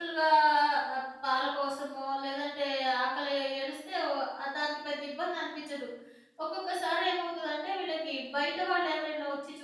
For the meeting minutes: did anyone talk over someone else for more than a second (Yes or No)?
No